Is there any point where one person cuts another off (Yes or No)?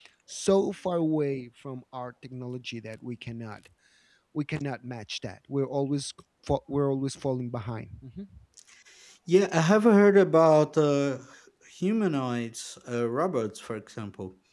No